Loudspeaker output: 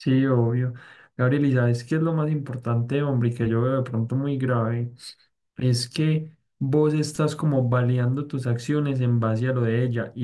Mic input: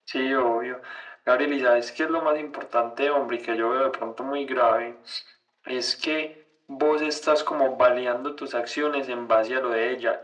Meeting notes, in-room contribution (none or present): none